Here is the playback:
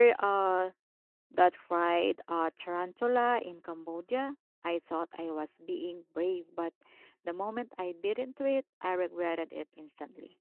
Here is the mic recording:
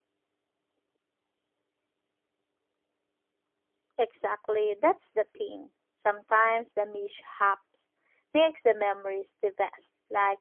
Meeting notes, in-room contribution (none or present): present